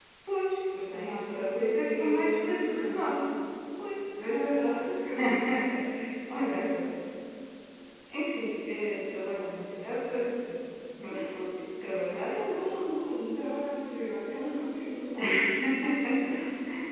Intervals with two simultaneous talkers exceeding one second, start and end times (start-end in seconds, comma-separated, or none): 0.9-3.1